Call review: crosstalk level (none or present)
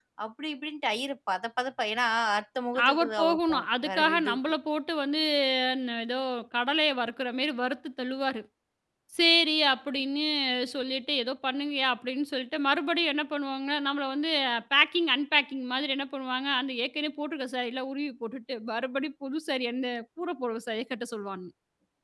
present